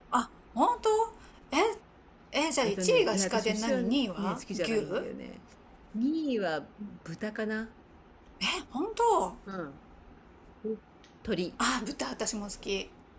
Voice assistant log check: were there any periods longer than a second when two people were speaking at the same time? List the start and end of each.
2.6-5.1

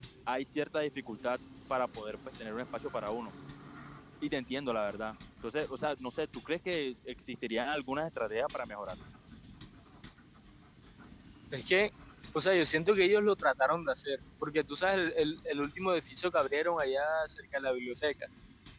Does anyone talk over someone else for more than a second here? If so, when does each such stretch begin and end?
none

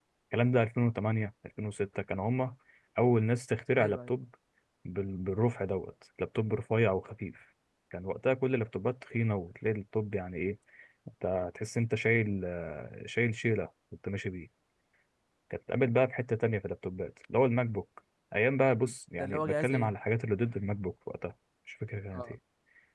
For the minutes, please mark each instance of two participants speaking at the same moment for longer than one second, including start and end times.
18.7-19.9

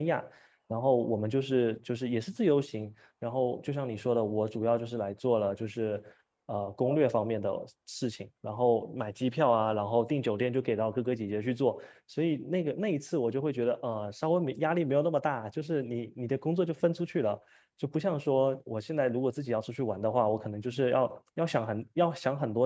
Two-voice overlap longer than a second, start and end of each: none

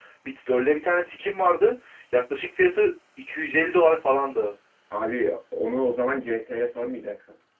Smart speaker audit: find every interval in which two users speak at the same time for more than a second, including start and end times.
none

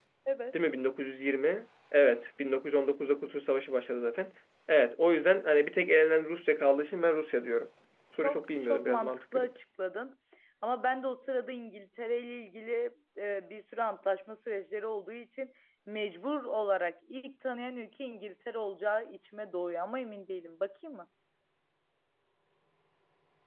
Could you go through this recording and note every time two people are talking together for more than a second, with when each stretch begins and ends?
8.2-9.5

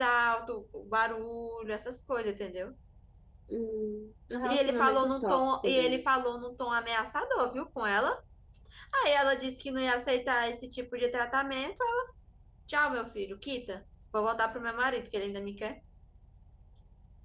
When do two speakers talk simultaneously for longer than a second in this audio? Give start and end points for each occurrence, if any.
4.4-6.0

